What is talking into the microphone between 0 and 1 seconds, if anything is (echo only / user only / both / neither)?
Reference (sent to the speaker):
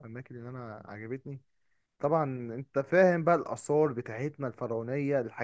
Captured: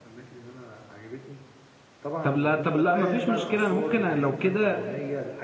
echo only